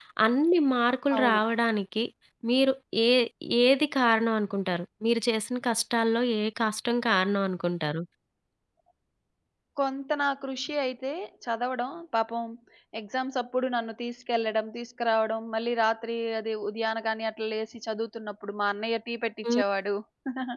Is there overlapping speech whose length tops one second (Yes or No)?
No